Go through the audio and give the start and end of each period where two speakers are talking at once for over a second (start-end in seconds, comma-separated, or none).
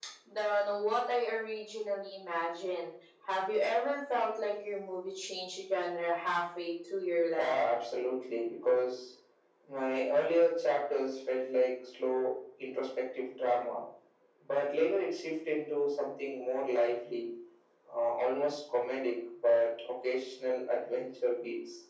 none